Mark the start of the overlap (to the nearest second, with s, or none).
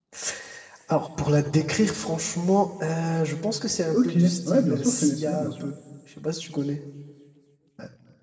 4 s